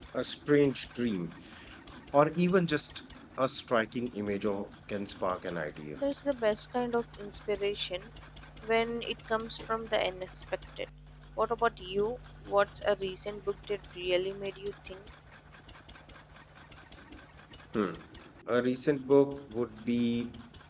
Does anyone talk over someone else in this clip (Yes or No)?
No